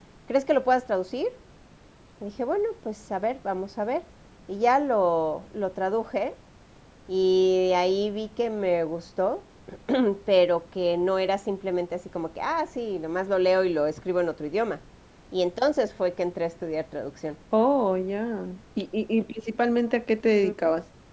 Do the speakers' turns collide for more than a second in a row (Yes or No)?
No